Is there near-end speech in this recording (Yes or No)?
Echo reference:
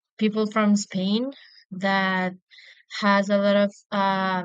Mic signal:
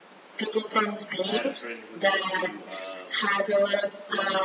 Yes